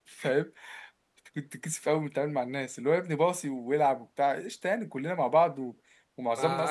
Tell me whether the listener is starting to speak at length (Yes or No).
No